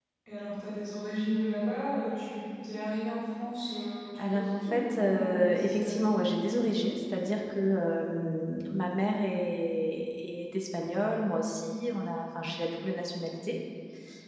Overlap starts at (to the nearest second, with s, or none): 4 s